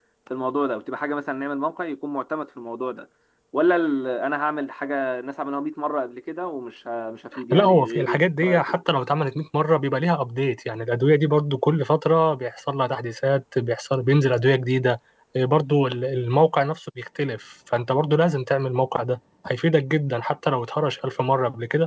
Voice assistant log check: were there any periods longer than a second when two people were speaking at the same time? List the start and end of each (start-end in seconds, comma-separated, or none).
7.5-8.8